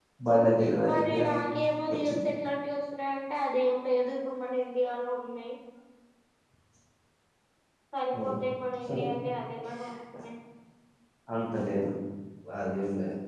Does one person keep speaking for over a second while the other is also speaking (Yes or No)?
No